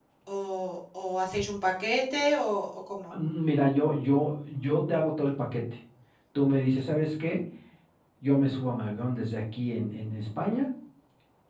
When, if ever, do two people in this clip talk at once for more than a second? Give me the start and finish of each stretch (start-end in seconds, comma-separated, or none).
none